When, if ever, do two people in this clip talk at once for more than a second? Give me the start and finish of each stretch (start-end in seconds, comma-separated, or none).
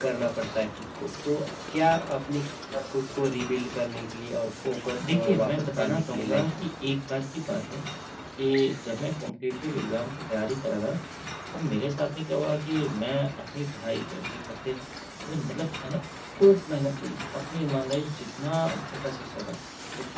5.1-6.7